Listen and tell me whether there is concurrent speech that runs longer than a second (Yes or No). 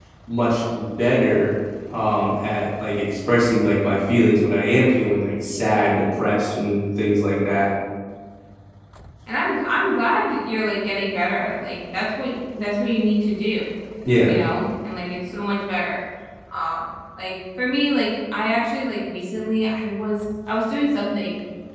No